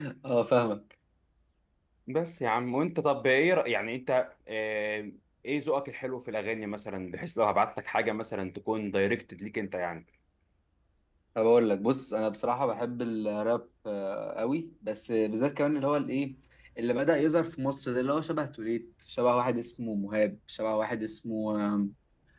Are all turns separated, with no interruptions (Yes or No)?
Yes